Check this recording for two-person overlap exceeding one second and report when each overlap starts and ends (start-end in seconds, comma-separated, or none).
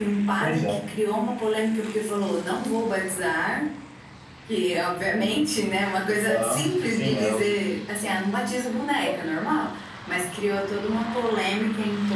6.3-7.6